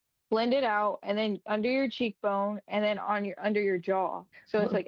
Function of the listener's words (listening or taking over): taking over